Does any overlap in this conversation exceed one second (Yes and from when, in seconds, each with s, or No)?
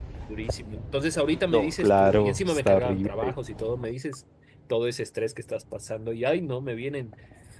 Yes, from 1.5 s